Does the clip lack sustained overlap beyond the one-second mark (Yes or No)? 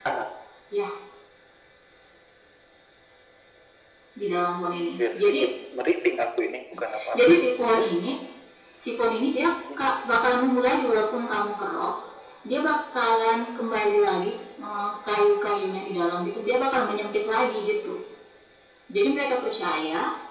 Yes